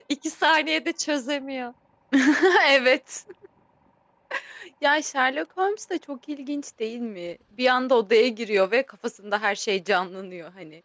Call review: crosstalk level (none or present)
none